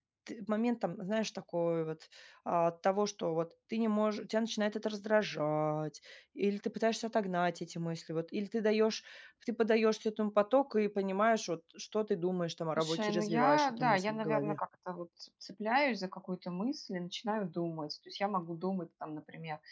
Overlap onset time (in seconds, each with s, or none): 12.8 s